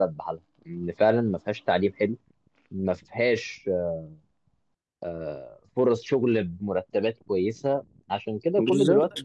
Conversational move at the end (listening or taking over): listening